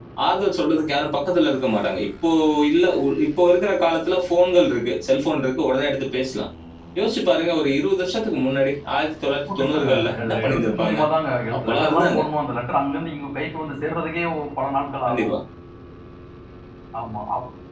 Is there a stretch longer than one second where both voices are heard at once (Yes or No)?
Yes